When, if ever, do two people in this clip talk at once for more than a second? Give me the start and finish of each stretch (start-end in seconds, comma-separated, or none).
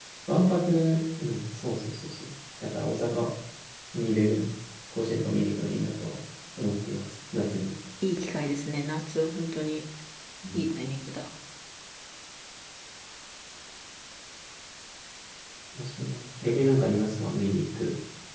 none